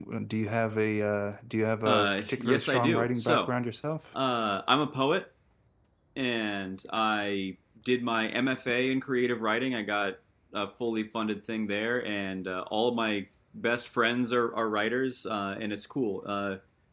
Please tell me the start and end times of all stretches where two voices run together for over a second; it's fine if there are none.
1.9-3.5

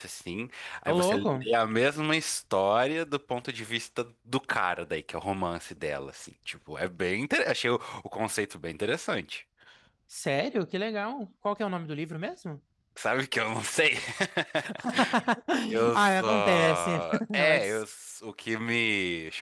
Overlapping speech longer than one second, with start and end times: 15.9-17.8

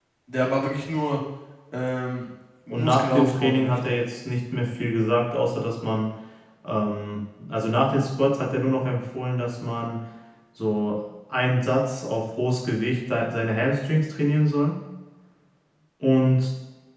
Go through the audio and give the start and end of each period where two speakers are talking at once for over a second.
2.7-4.0

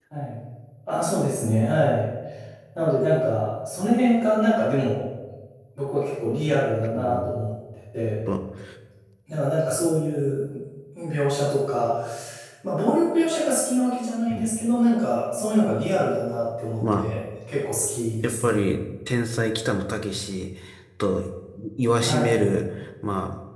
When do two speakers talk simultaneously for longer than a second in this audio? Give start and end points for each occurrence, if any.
none

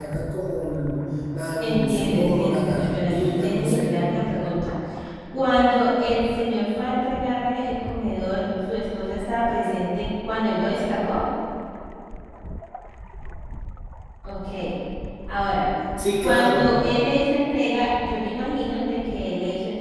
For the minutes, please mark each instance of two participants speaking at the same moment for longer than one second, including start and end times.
1.6-4.0

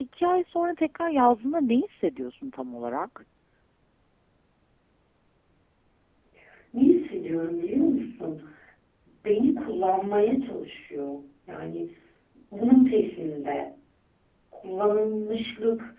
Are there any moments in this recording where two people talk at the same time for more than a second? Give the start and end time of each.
none

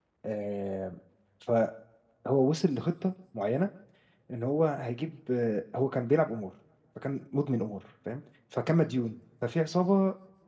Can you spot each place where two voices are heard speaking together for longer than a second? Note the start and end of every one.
none

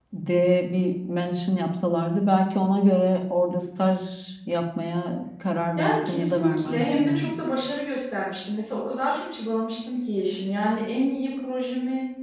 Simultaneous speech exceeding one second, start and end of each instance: 5.8-7.3

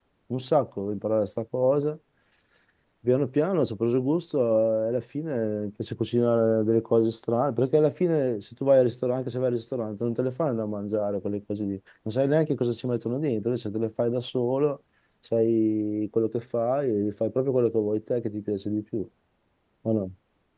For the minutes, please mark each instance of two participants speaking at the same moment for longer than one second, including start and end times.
none

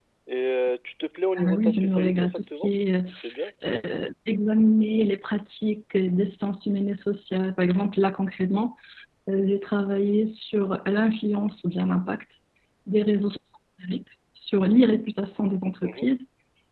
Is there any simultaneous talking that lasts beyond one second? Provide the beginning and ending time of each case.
1.4-2.7

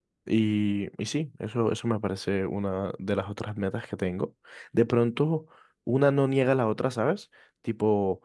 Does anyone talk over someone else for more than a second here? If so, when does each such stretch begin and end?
none

